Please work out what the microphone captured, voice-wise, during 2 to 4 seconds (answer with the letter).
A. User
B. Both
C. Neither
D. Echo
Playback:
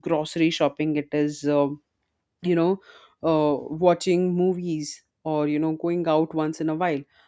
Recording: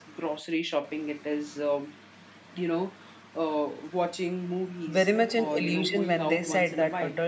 D